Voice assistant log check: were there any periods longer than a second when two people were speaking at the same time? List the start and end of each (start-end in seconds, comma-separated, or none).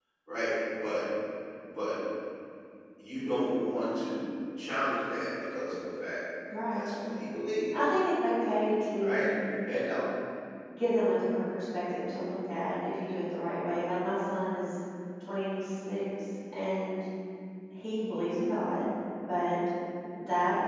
none